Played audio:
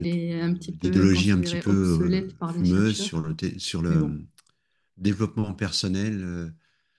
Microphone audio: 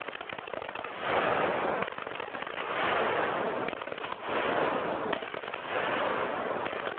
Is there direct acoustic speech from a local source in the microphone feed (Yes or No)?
No